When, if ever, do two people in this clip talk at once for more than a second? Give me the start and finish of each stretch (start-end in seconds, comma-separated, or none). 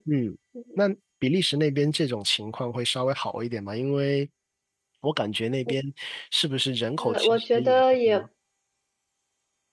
7.0-8.2